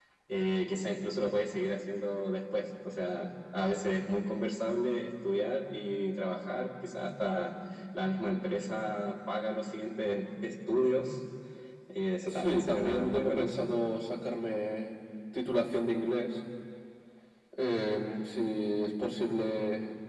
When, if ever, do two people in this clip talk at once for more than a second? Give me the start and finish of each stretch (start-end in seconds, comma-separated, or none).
12.3-13.7